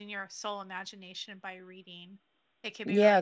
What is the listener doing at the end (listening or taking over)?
taking over